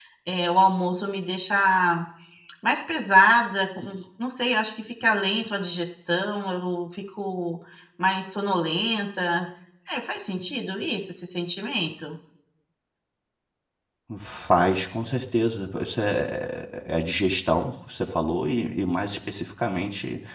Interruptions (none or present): none